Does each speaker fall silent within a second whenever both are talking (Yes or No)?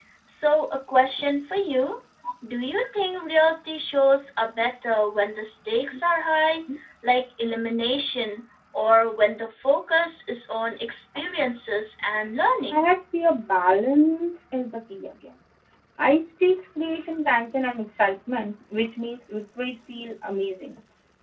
Yes